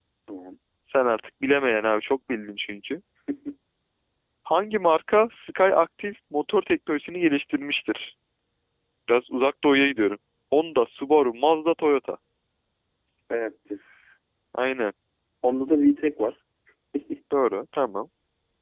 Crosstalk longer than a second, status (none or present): none